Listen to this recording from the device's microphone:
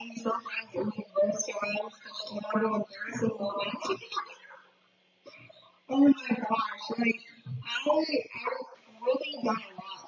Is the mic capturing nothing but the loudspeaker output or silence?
Yes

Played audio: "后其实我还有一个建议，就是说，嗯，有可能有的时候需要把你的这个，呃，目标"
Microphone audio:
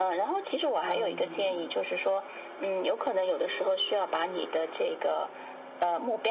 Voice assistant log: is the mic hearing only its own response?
No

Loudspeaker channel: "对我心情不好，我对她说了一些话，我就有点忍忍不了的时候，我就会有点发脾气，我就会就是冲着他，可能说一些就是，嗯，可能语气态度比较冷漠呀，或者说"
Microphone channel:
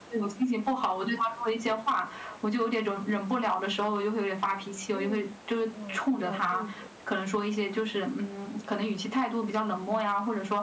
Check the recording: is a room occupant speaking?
Yes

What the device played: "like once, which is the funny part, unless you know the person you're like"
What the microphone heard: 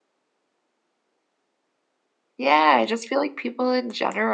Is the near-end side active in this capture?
Yes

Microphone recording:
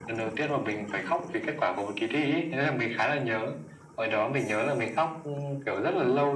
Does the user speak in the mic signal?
No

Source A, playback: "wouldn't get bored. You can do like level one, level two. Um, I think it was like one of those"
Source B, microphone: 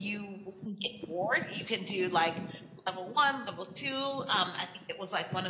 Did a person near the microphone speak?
No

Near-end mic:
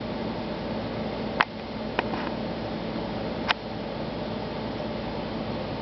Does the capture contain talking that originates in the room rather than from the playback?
No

